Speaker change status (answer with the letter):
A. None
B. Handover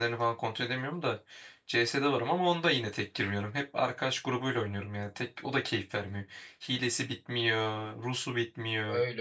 B